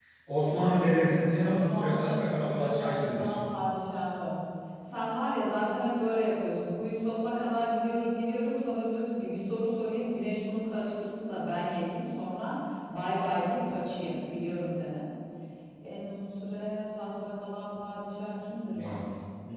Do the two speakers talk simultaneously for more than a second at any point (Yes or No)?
Yes